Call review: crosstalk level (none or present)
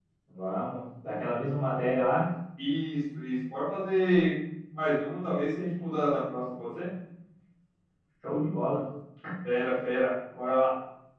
none